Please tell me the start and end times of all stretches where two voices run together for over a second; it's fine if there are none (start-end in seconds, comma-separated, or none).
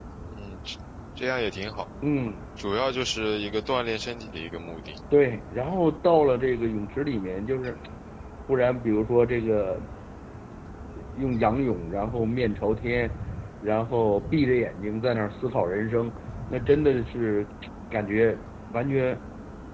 none